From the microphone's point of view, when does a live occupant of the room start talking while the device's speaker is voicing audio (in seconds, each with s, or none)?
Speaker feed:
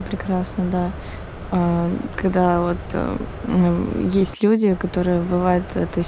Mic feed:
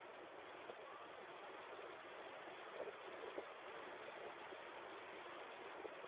none